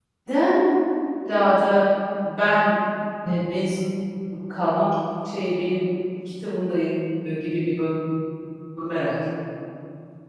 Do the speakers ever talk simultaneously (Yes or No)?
No